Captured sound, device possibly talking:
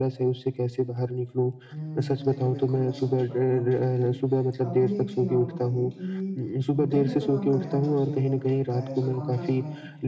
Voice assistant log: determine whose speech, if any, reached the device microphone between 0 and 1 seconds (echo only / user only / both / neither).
echo only